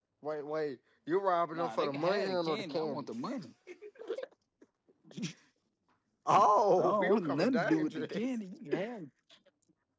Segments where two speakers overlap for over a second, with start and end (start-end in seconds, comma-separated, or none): 1.5-3.0, 6.8-8.3